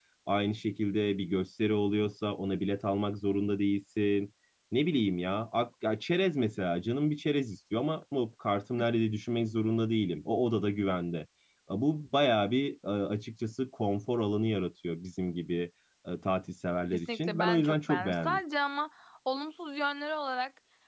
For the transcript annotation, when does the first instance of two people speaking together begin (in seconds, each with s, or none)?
16.9 s